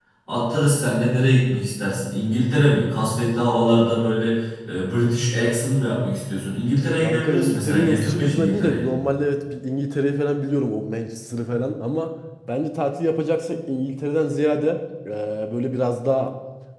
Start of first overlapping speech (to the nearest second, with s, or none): 7 s